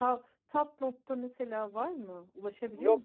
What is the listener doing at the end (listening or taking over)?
taking over